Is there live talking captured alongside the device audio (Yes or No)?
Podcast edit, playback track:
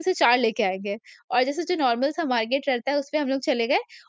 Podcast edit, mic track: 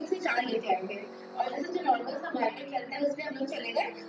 No